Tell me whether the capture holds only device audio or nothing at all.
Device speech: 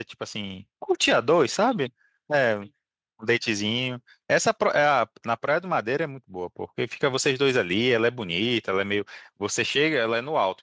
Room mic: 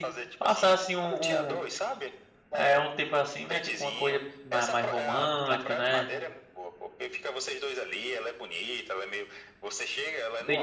No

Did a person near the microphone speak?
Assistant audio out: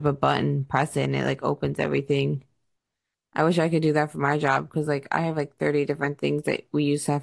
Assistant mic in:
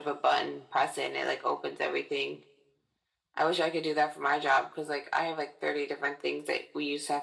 No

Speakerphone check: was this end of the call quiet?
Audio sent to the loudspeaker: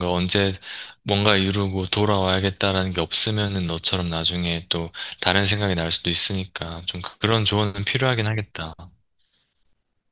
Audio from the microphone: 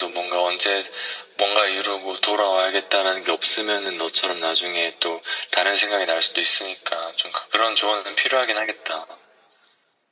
Yes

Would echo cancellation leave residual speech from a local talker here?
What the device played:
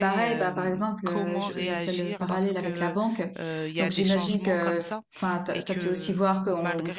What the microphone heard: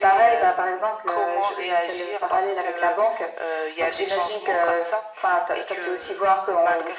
No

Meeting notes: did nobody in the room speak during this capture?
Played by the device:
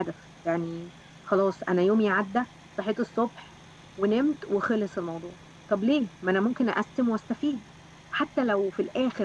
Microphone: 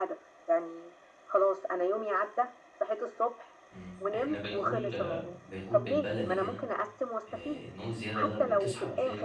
No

